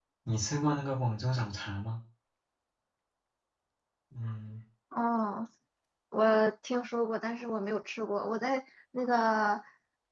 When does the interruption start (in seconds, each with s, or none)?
none